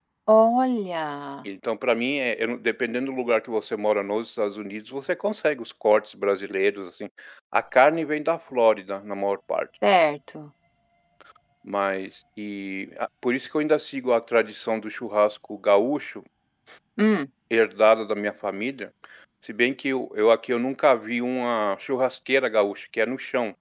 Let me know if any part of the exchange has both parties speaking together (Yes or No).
No